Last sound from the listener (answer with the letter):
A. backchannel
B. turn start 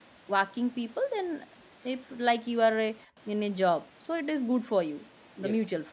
B